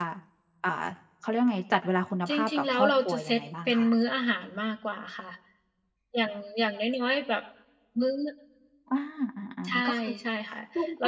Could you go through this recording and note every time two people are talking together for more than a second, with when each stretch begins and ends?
2.3-3.9

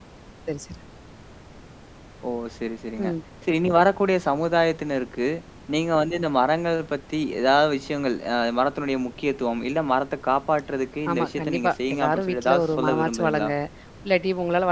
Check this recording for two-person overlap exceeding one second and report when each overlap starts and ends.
11.1-13.5

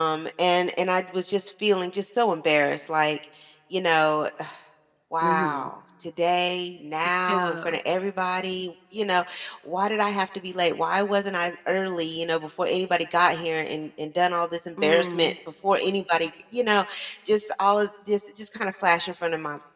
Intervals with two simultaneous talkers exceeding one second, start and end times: none

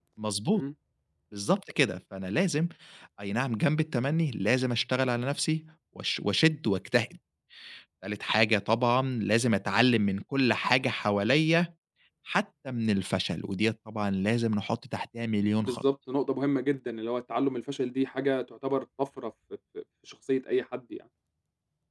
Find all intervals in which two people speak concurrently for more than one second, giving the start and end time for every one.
none

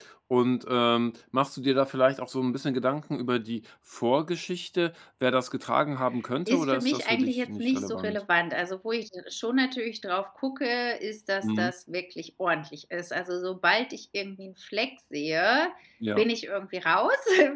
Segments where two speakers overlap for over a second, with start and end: 6.5-8.2

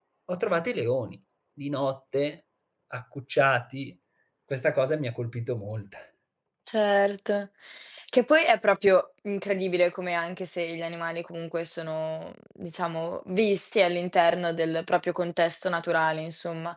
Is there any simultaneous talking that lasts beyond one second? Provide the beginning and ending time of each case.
none

